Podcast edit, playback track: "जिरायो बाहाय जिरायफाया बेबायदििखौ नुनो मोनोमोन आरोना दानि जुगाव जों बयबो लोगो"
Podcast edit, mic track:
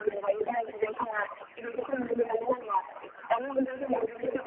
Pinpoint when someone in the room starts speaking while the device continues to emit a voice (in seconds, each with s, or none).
none